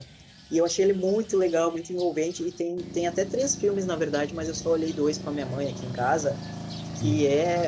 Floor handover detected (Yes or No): No